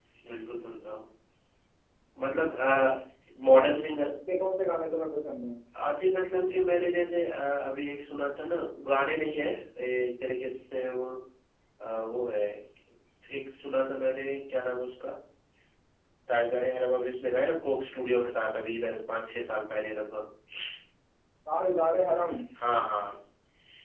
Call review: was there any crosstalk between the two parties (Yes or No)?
No